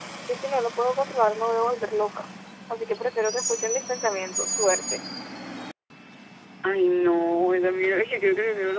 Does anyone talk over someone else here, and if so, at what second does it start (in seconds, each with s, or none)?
none